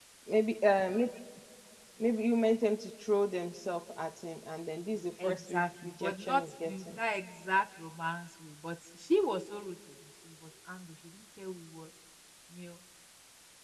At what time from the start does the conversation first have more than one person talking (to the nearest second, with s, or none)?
5 s